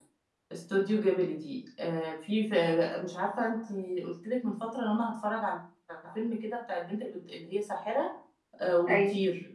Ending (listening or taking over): listening